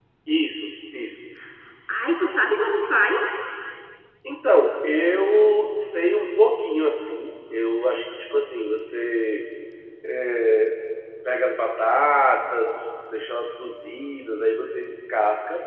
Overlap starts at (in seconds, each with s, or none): none